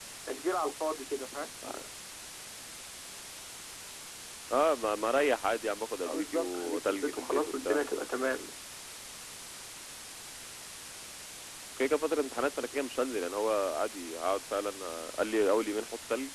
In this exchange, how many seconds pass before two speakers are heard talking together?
6.1 s

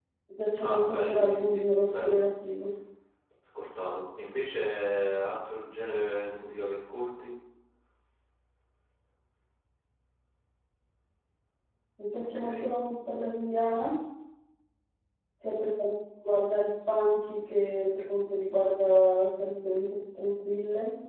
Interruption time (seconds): 0.6 s

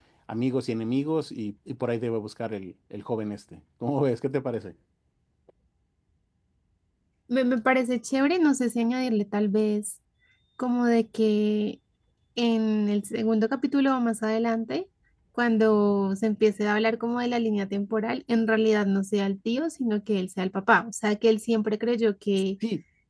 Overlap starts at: none

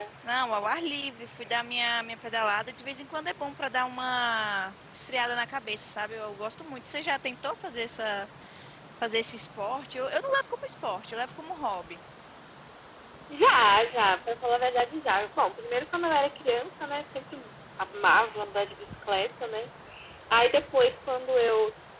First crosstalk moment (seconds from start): none

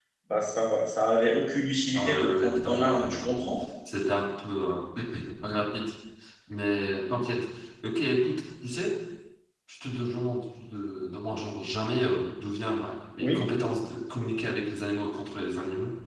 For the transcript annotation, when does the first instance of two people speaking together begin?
1.9 s

